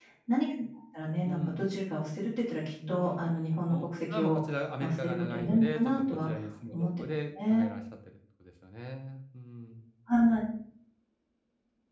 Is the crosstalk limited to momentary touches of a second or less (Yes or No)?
No